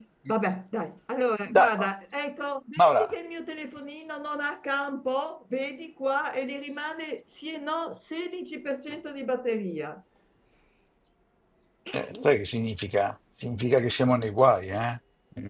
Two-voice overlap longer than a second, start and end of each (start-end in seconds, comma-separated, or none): none